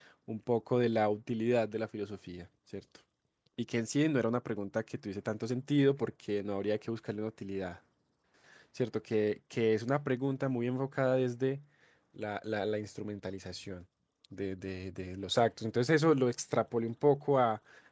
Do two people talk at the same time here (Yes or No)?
No